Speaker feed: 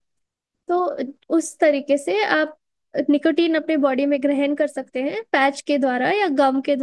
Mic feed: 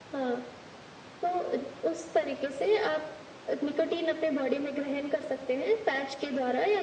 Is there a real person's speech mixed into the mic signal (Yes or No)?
No